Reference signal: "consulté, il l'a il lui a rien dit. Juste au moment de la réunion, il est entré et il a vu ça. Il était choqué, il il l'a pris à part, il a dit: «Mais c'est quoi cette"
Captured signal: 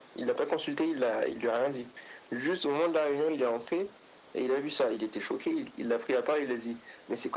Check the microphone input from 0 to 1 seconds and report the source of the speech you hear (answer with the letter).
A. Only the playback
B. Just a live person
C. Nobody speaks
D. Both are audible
A